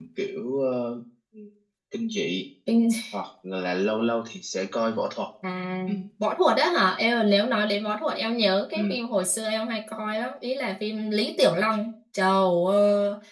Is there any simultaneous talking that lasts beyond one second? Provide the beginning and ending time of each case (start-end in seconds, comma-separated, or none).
none